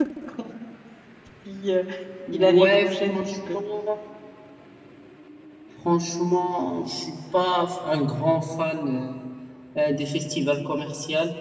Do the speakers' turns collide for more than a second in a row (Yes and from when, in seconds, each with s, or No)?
Yes, from 2.3 s